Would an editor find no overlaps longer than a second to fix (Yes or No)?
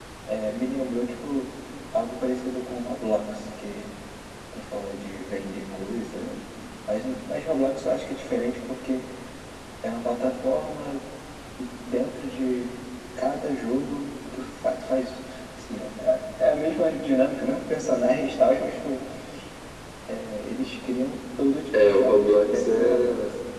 No